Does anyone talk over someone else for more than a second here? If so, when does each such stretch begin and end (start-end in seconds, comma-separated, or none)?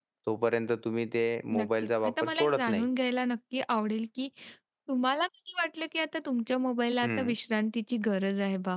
1.6-2.9